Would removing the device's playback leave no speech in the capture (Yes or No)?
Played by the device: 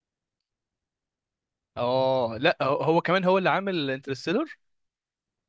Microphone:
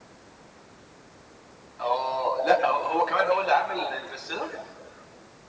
Yes